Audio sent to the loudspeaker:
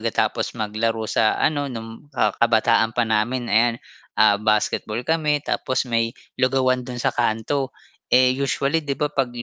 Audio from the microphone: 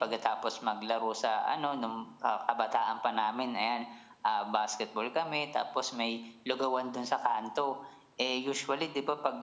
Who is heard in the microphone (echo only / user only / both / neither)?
echo only